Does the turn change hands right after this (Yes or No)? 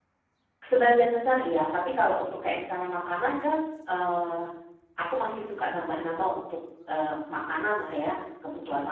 Yes